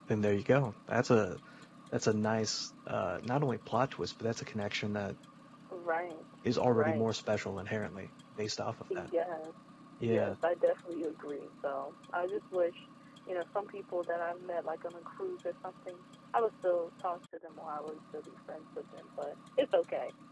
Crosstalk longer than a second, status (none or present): none